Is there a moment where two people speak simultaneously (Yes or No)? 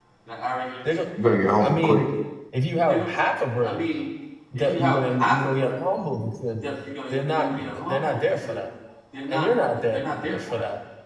Yes